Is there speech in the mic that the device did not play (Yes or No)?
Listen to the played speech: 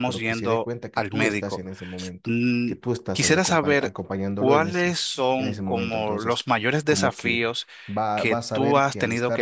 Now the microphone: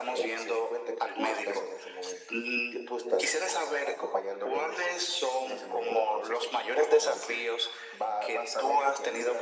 No